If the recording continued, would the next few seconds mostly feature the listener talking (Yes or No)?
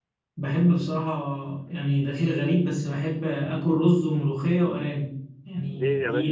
Yes